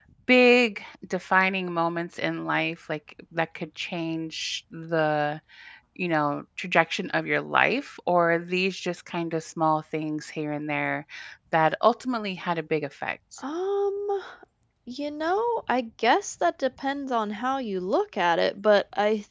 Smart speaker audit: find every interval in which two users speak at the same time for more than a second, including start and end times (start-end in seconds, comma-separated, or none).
none